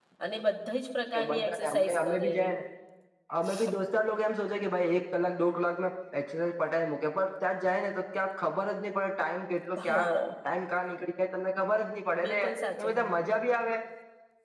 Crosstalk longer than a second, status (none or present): present